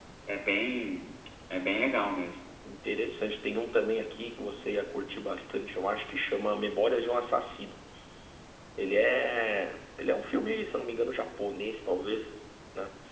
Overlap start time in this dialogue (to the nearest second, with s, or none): none